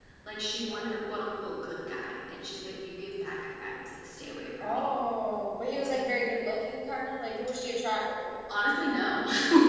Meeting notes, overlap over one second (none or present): none